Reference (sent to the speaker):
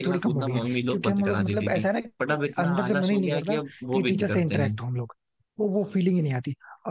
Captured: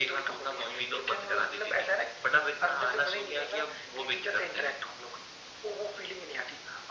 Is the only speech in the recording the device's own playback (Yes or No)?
Yes